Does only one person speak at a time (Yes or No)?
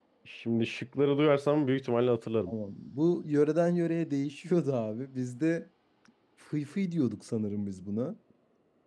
Yes